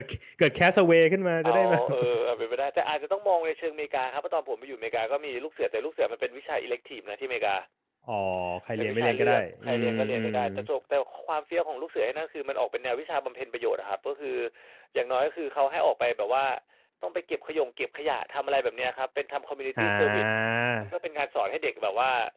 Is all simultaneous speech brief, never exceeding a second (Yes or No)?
No